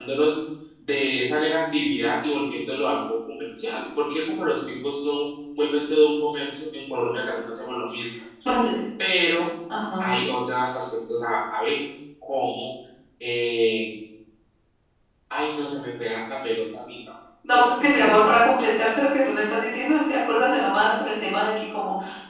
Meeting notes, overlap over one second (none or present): none